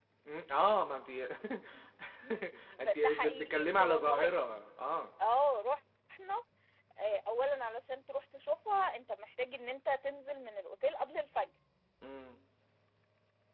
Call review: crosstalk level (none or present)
present